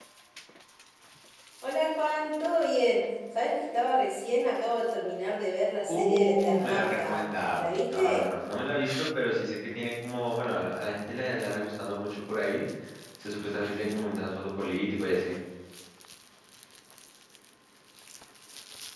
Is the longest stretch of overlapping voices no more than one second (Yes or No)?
No